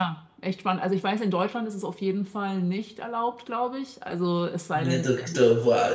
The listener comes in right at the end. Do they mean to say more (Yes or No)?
Yes